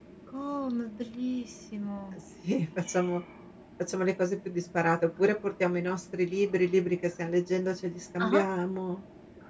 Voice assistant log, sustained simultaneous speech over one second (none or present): none